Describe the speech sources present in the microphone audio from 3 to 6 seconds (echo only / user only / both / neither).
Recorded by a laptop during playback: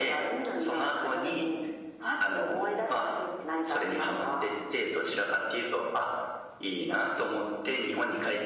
echo only